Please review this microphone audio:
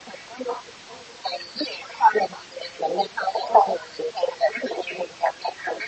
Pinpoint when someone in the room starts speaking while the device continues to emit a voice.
none

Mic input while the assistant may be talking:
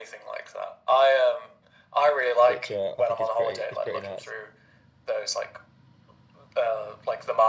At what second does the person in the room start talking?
2.4 s

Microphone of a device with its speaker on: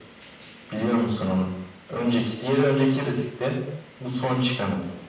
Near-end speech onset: none

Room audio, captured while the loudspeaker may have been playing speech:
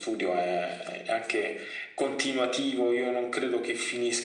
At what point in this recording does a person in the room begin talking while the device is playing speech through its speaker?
none

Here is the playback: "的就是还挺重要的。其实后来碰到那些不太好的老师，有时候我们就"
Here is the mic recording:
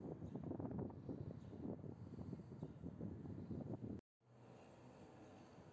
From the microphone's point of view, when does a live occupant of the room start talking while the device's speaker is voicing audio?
none

